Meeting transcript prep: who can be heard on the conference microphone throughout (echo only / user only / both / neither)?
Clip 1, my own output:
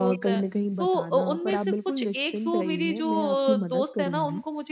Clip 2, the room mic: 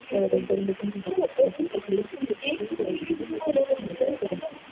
echo only